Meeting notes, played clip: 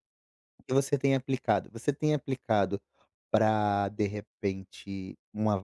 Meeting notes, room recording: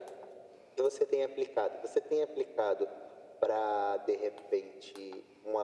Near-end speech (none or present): none